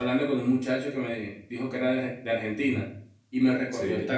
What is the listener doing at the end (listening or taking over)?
listening